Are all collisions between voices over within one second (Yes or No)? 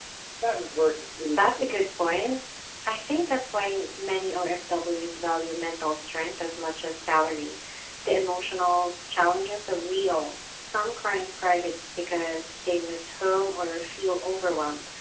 Yes